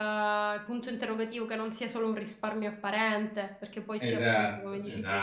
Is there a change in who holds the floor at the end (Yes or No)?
Yes